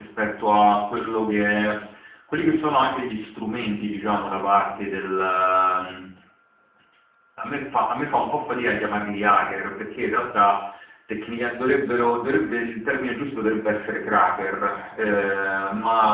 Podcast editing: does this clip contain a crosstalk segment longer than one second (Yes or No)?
No